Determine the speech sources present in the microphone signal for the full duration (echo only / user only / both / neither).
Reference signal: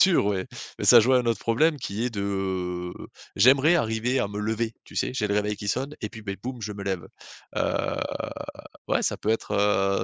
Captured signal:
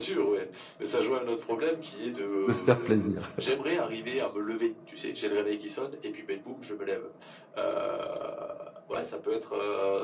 both